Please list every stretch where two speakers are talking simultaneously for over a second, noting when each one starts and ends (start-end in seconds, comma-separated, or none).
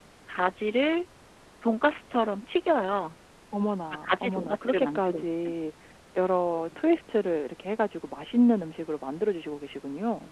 4.0-5.2